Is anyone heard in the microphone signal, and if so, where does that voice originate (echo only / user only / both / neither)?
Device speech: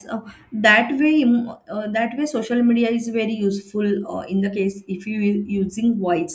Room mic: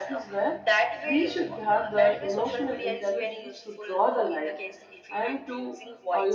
both